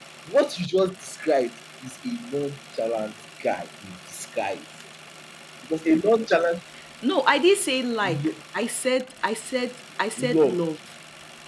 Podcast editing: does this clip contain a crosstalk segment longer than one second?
No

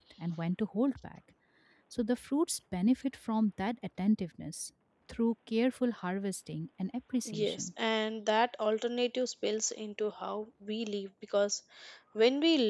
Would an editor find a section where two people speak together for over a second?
No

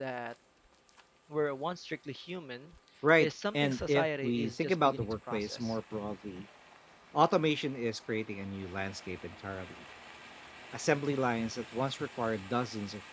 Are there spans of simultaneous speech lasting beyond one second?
Yes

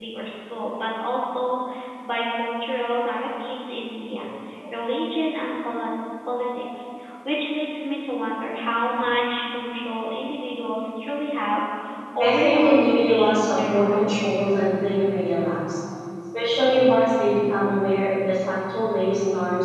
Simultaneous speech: Yes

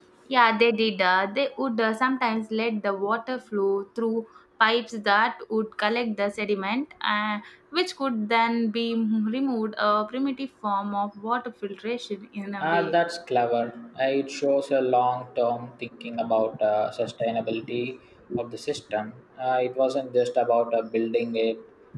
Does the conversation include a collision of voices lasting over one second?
No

